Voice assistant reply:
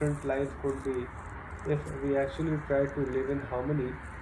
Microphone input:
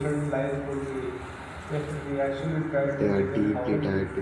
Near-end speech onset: 3.0 s

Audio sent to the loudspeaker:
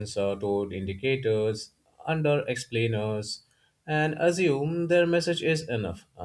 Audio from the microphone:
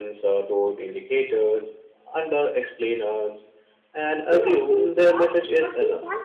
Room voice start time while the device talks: 4.3 s

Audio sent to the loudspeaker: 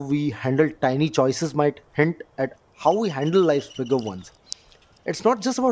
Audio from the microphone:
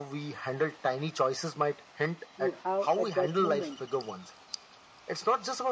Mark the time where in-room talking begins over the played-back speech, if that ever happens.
2.4 s

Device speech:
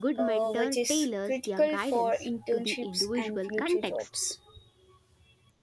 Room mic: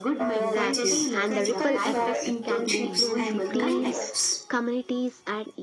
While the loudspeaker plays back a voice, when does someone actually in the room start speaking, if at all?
0.3 s

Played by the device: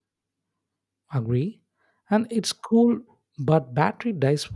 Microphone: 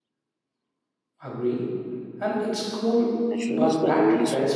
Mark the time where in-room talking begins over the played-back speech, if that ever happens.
3.2 s

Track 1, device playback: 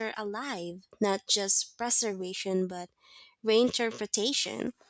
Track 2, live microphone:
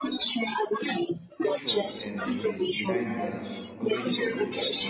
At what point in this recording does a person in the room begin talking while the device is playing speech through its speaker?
1.4 s

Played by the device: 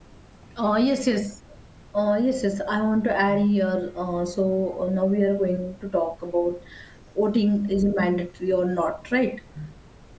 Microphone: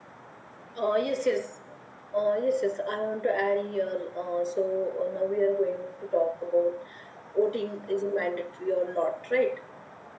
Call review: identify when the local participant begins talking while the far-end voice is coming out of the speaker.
none

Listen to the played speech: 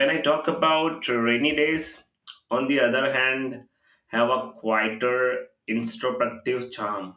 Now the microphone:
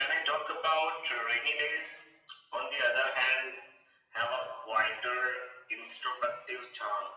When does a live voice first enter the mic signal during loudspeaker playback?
none

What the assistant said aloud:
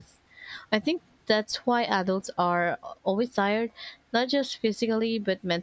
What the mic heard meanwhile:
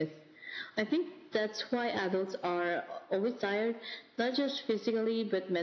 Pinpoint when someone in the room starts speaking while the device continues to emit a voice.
none

